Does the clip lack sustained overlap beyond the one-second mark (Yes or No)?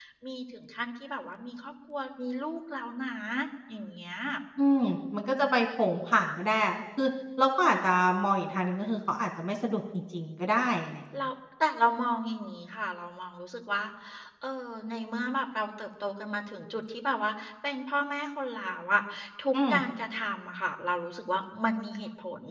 Yes